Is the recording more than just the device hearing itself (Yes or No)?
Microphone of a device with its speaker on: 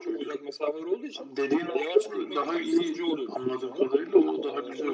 No